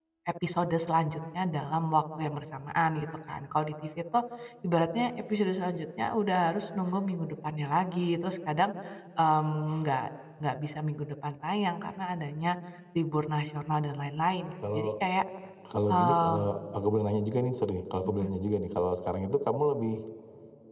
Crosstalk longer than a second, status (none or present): none